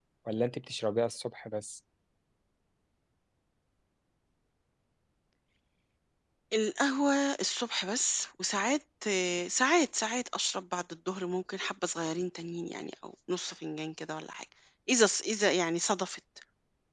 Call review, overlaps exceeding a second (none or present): none